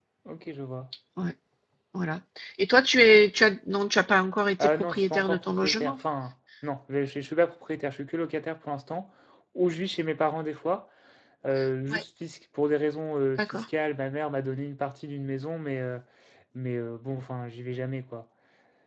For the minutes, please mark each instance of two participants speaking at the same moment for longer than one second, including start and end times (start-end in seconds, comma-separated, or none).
4.6-6.0